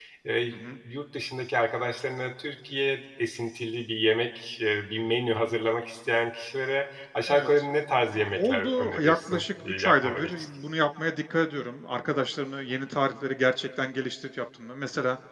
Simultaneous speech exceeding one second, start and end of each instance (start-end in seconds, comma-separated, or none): 8.4-10.4